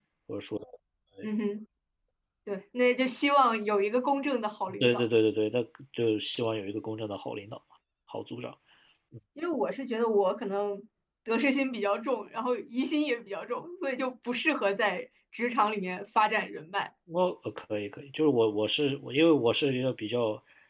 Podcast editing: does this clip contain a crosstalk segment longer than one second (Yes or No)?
No